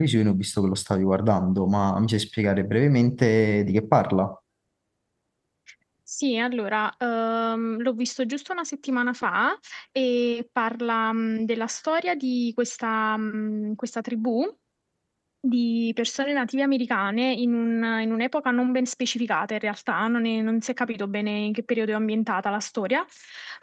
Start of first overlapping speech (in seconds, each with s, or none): none